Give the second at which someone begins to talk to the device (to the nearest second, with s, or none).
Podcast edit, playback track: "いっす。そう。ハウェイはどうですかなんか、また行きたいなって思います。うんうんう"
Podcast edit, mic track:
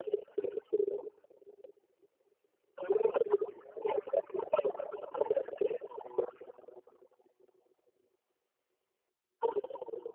none